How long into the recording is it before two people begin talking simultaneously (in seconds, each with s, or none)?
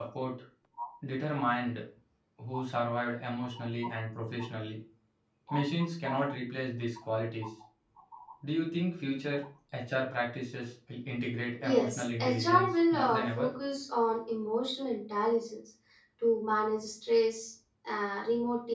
11.6 s